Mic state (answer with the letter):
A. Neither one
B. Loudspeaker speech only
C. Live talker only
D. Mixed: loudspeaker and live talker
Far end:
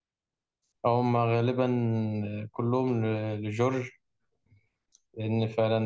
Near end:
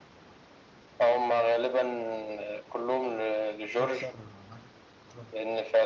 D